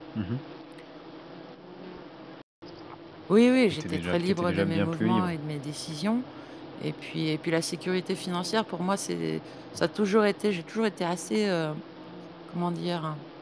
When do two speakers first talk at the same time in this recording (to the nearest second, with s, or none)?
4 s